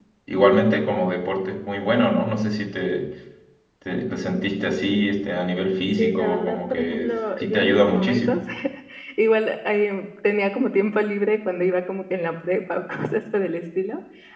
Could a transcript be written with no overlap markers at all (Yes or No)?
No